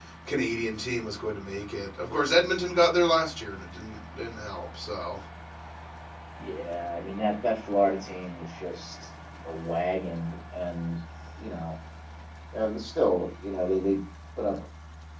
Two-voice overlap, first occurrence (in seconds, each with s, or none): none